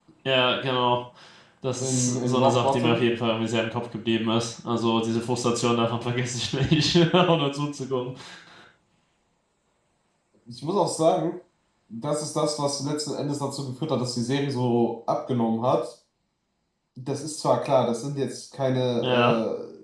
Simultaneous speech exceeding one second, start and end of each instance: 1.8-3.0

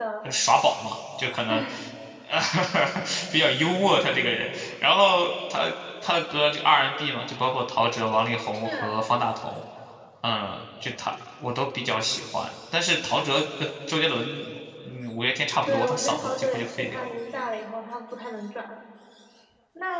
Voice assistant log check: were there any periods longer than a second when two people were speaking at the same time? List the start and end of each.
15.6-17.1

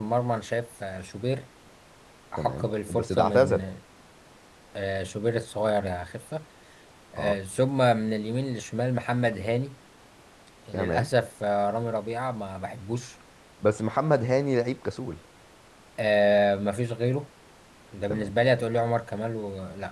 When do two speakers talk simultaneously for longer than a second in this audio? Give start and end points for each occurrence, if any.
2.4-3.7

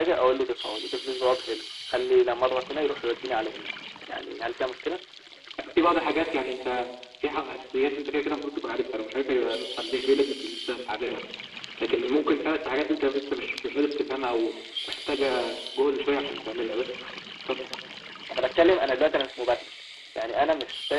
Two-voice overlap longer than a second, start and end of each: none

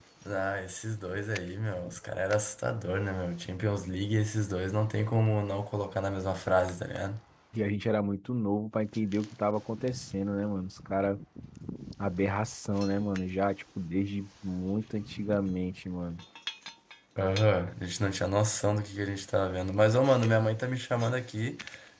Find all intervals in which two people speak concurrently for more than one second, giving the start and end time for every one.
none

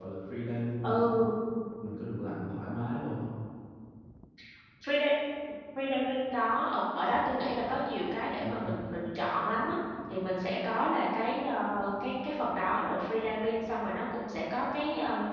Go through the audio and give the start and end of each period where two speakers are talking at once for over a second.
none

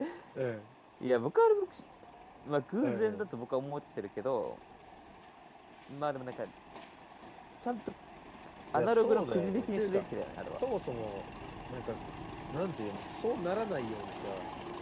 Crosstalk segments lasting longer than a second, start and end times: 8.7-10.0

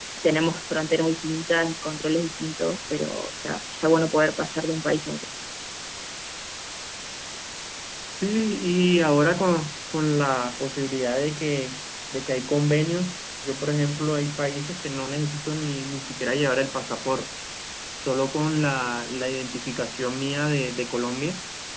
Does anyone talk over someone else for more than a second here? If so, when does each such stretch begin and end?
none

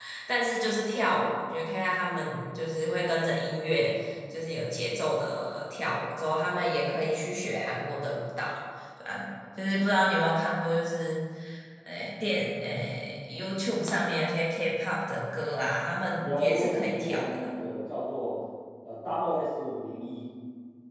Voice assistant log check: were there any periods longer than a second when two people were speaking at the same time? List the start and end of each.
16.2-17.5

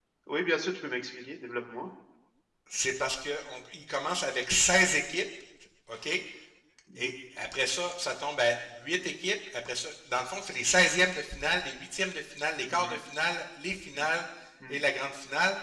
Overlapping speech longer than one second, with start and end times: none

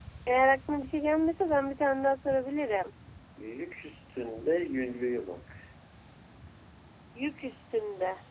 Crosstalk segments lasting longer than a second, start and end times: none

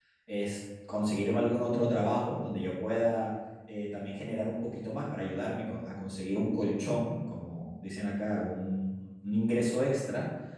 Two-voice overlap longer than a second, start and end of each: none

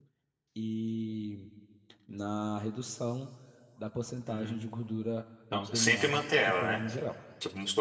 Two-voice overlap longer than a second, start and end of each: 5.5-6.8

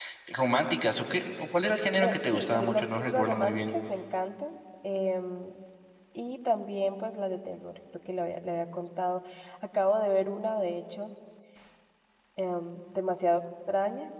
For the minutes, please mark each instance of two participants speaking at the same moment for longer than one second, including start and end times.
2.0-3.7

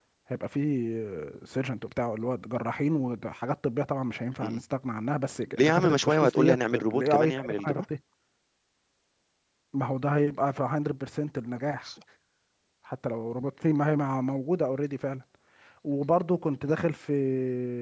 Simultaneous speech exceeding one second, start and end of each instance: 5.5-7.8

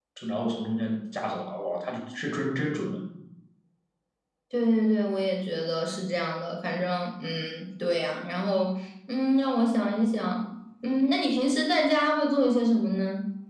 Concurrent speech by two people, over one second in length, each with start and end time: none

